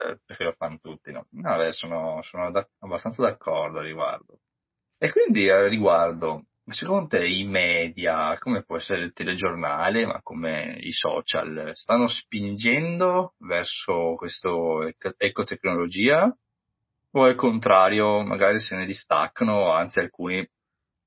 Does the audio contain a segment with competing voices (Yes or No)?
No